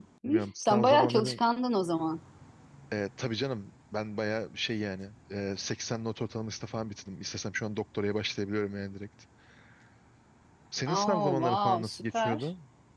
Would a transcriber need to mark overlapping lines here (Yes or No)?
Yes